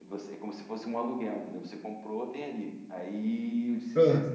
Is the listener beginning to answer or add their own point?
No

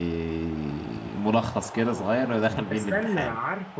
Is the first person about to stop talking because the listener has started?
Yes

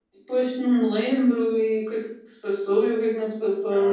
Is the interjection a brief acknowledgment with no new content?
No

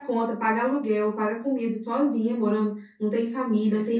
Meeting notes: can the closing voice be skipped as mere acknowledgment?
Yes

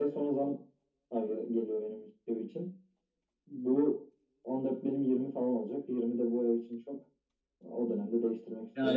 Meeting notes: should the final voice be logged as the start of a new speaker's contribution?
Yes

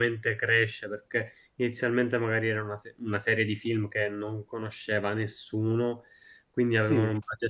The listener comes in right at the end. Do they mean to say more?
No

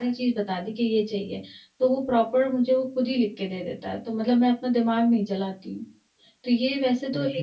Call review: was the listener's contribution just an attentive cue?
No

